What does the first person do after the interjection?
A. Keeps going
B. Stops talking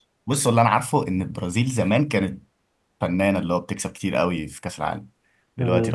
B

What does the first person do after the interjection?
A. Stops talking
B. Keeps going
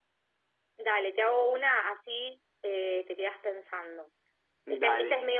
B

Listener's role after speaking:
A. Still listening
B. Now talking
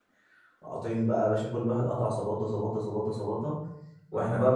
A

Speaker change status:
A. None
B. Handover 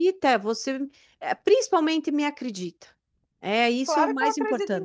B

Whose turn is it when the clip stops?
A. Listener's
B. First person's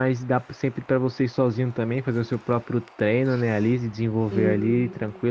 B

